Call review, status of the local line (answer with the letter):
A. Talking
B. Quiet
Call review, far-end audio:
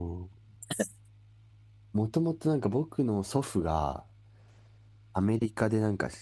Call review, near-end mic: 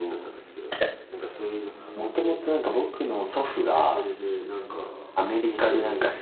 A